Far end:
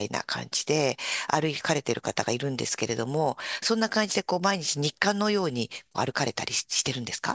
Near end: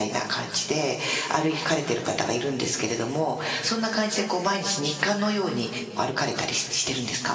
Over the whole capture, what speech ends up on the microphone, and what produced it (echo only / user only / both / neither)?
echo only